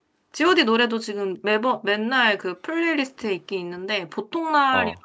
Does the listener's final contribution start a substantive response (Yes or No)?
No